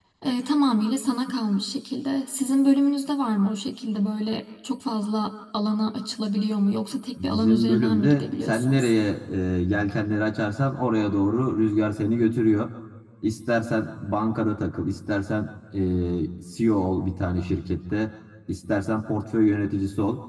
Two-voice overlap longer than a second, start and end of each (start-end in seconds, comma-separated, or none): 7.2-8.9